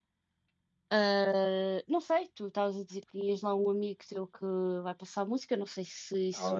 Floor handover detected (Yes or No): Yes